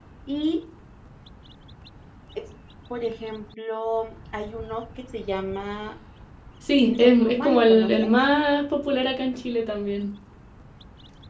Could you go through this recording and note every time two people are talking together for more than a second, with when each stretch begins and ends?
6.8-8.1

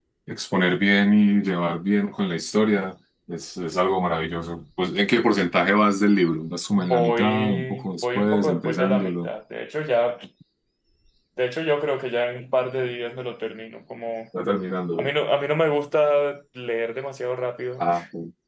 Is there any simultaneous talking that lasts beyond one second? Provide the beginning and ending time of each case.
6.8-9.3

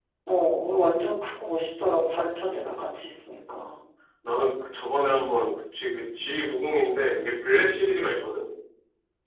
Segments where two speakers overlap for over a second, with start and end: none

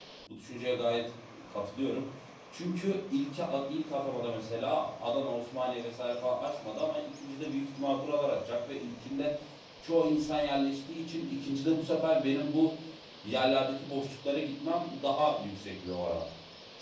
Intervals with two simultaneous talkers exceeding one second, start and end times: none

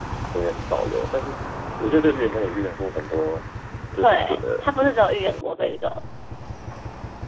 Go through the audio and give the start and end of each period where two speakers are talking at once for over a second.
4.0-5.3

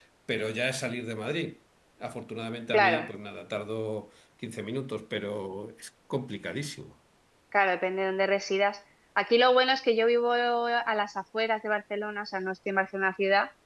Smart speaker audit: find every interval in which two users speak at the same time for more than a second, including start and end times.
none

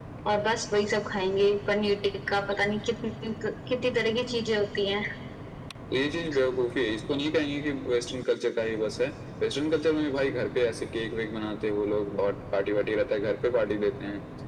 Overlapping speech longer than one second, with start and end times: none

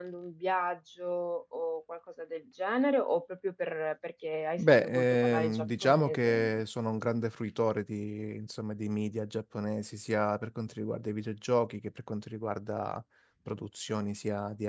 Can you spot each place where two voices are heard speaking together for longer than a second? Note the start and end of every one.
4.6-6.6

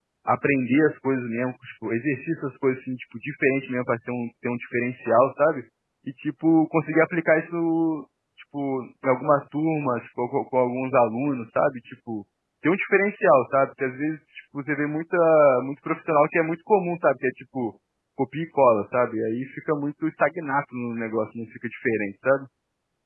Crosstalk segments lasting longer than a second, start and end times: none

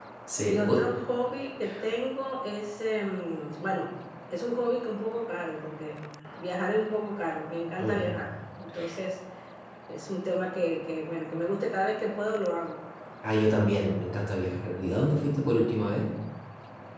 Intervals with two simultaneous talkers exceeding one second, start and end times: none

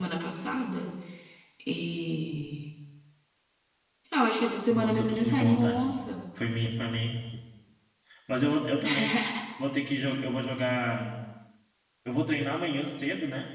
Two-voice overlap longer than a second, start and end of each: 4.7-6.0

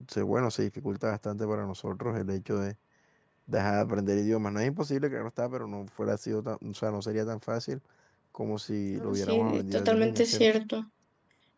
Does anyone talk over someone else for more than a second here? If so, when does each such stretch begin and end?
9.0-10.5

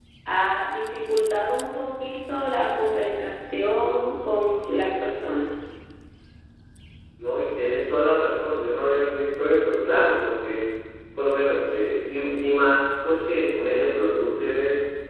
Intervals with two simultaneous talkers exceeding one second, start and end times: none

